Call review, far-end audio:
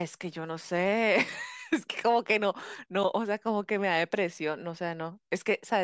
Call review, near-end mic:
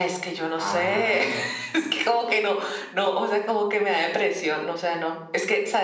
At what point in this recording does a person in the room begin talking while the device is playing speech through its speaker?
0.6 s

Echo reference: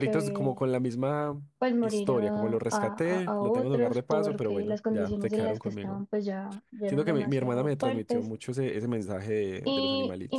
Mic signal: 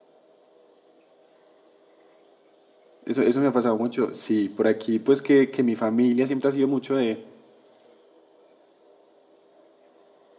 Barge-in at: 3.0 s

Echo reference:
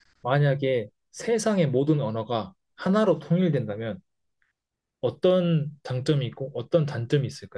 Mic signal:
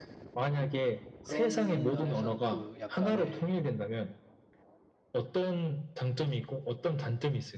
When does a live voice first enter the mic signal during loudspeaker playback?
1.2 s

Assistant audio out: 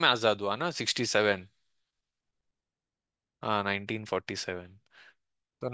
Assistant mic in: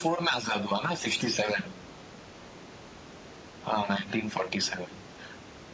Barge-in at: none

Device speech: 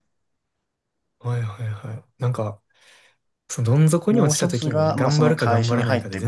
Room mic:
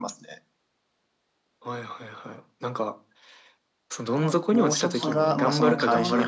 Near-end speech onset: 4.1 s

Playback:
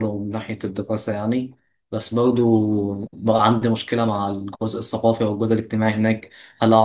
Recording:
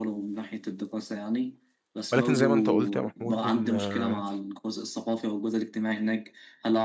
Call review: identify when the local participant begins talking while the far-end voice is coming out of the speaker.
2.1 s

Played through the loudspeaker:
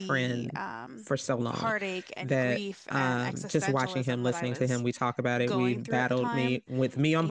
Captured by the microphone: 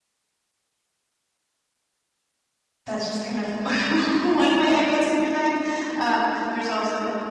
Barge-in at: 2.8 s

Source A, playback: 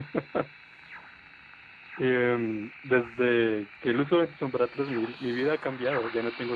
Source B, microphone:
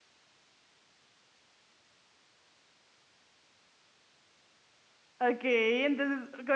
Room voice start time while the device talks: 5.2 s

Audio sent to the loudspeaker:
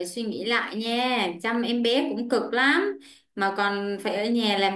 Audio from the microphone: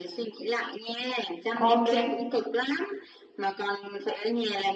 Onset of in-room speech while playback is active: 1.6 s

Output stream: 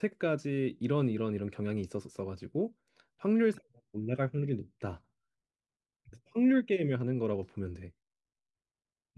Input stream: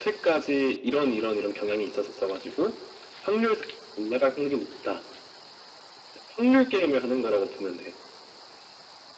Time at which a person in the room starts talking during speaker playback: none

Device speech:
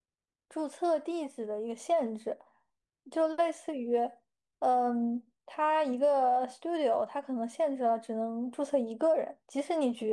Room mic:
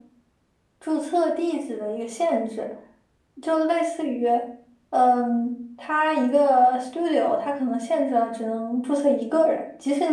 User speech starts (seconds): none

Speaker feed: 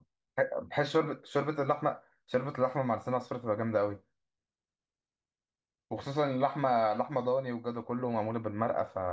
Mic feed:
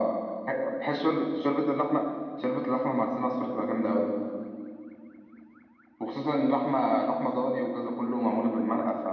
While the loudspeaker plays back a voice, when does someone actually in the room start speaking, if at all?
none

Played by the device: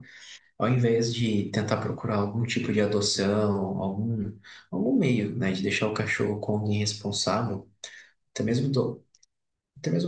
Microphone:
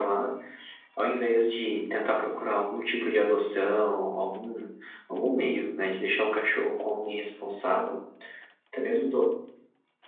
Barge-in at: none

